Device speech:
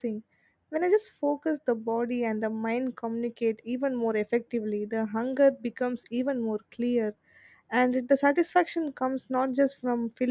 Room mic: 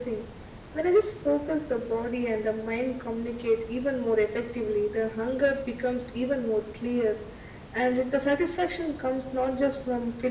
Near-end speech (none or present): none